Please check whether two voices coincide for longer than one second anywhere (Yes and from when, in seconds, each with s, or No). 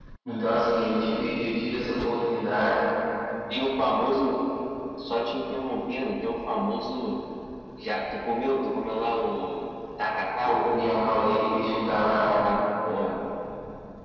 No